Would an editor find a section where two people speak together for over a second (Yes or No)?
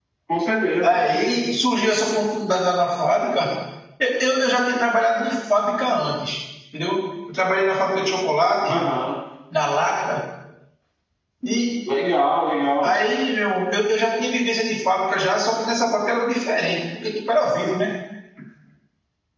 No